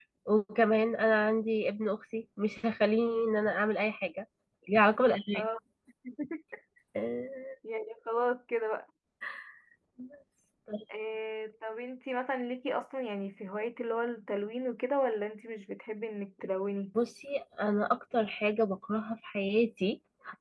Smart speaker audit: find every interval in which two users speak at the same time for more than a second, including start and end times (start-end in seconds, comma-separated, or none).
none